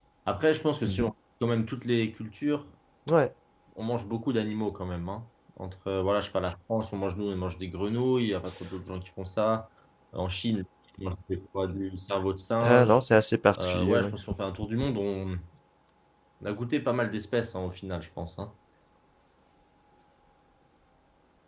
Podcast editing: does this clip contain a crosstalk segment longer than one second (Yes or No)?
No